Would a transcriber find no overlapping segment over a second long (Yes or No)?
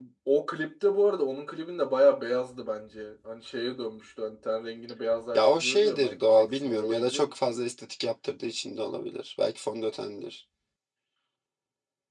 No